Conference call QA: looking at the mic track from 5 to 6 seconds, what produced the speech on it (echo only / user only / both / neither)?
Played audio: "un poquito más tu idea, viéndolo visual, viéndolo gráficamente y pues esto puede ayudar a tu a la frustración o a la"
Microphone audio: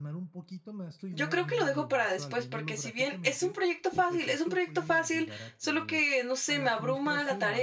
both